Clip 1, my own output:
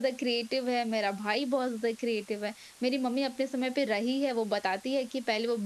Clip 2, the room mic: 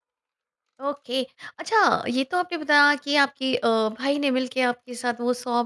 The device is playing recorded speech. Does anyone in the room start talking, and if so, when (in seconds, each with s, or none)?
0.9 s